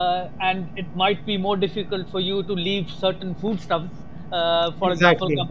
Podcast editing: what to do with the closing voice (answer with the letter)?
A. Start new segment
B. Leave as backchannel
B